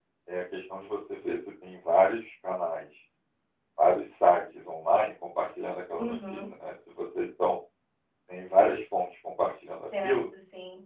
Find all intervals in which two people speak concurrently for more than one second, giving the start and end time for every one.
none

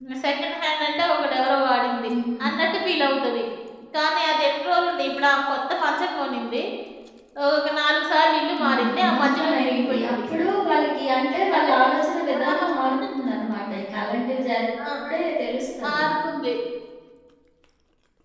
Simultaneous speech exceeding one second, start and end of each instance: 8.6-10.1

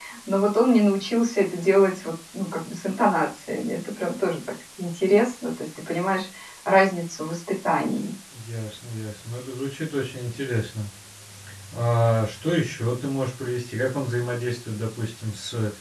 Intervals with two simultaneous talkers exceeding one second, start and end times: none

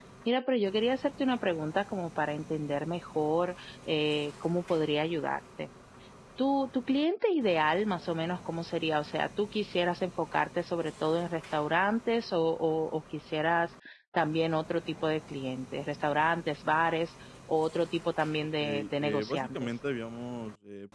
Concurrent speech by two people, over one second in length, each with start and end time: 18.6-19.8

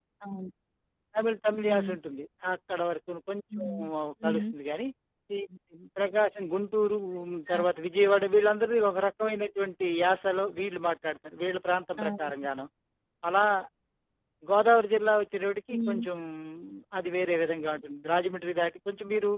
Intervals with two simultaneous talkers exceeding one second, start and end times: none

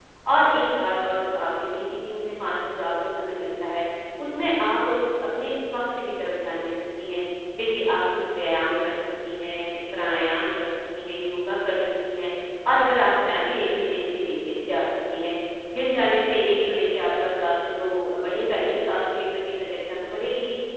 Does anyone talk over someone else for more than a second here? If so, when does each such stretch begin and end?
none

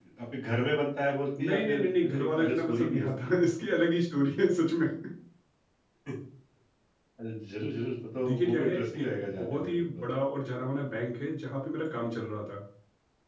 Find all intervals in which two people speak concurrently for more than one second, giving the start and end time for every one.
1.4-3.3, 8.2-10.1

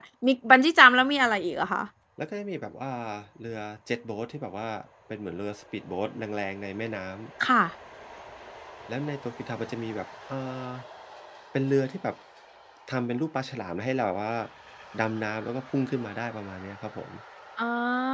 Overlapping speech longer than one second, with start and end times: none

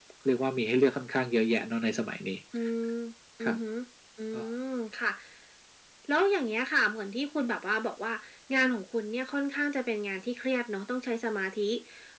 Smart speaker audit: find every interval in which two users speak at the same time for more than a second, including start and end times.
none

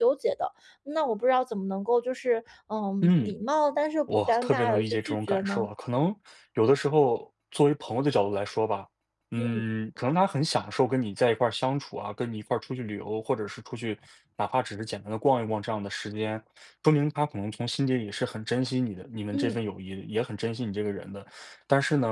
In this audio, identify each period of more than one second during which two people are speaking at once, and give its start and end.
4.3-5.7

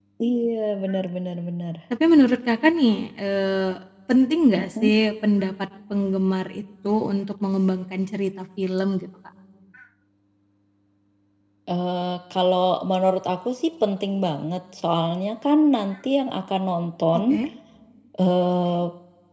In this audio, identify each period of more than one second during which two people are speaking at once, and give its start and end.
none

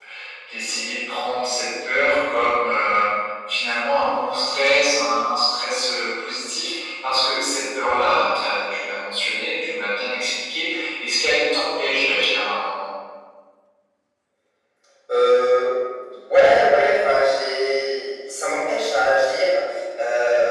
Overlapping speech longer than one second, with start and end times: none

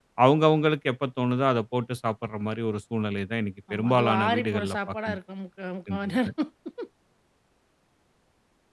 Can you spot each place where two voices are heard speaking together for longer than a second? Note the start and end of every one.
3.7-5.2

